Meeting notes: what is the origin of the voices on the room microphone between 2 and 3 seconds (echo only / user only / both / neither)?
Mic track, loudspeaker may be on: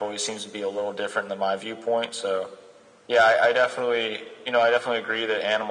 echo only